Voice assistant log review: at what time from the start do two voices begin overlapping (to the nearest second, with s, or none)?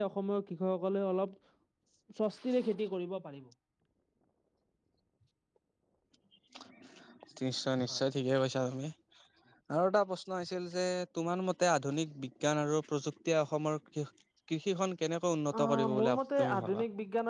16 s